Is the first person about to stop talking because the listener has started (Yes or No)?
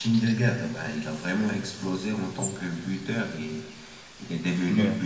No